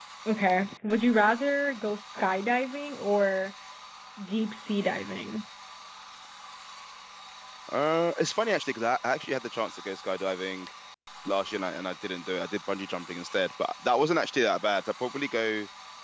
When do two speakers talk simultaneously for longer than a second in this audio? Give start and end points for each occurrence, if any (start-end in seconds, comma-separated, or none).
none